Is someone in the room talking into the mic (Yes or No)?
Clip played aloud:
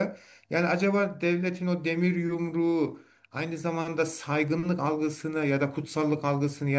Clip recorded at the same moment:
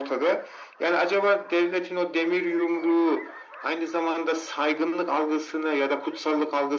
No